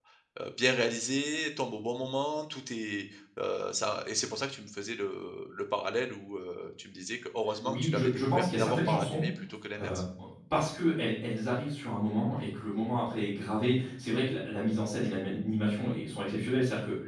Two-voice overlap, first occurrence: 7.6 s

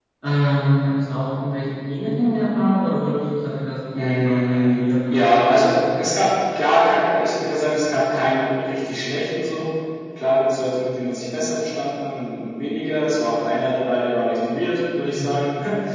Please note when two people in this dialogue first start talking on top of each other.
4.0 s

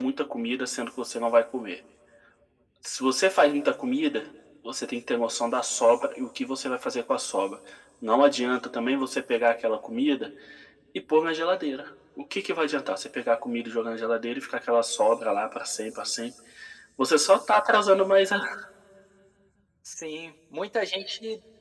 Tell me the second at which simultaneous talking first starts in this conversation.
none

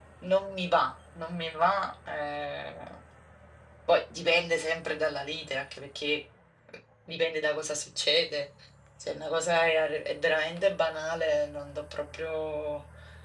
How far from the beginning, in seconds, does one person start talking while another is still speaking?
none

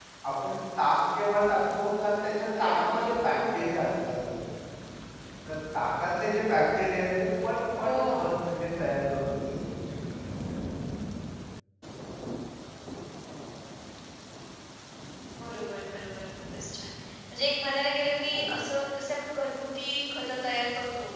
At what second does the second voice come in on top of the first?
2.6 s

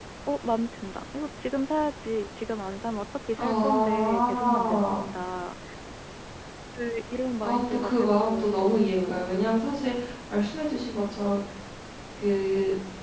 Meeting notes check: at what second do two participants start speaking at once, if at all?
3.4 s

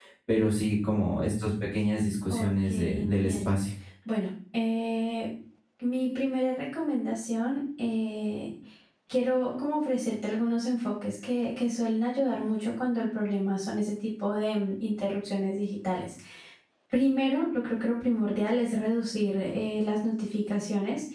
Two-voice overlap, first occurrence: 2.3 s

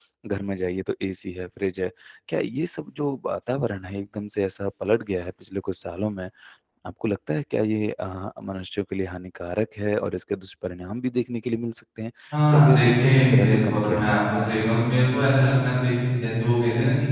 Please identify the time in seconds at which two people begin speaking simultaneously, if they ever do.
12.5 s

